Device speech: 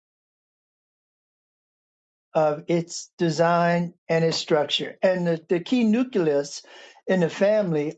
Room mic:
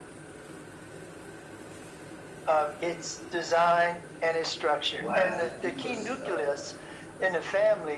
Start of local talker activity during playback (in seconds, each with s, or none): 5.0 s